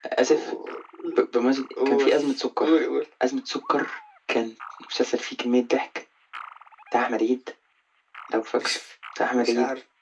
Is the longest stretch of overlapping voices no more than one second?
Yes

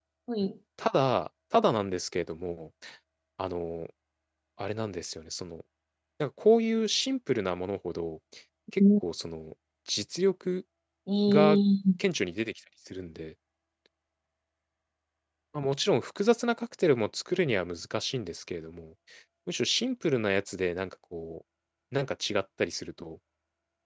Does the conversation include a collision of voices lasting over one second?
No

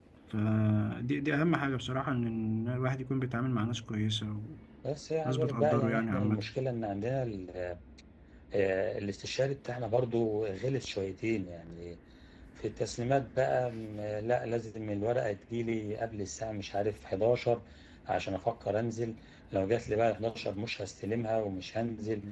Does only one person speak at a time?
No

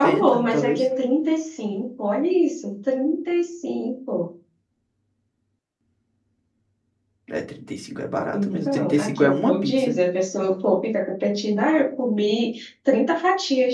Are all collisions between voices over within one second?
No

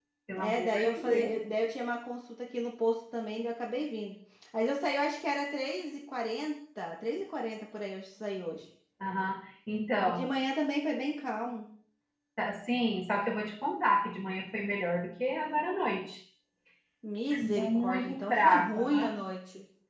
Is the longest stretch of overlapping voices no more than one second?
No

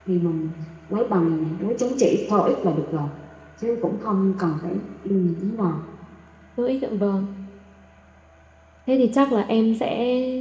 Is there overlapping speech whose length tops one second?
No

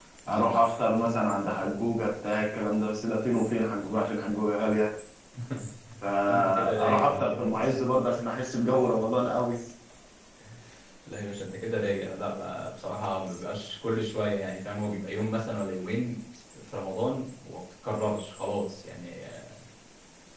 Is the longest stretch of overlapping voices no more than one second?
No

